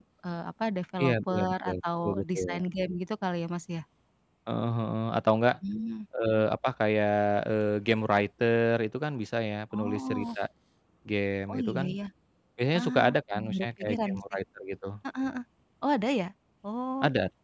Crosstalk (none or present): present